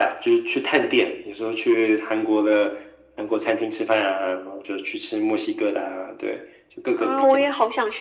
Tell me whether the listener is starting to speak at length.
Yes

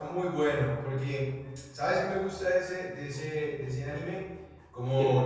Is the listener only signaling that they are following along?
Yes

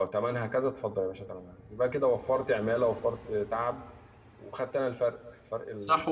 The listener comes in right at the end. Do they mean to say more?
Yes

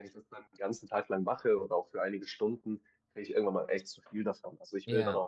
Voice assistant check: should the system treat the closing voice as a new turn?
No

